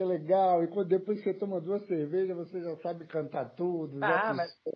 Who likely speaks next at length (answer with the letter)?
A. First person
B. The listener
B